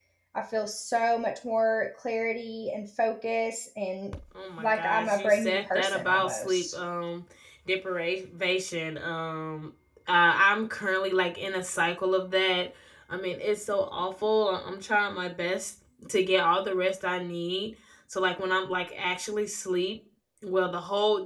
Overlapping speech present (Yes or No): Yes